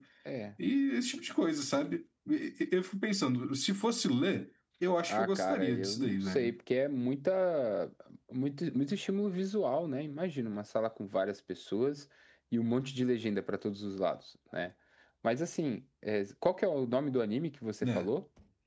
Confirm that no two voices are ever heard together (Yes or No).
No